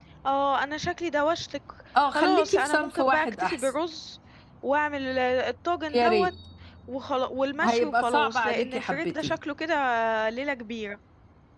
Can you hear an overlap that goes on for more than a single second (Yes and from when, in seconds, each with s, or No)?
Yes, from 2.1 s